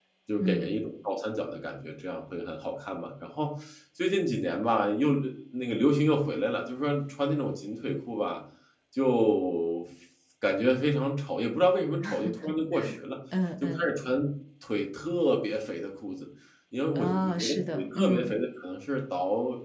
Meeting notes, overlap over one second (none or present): present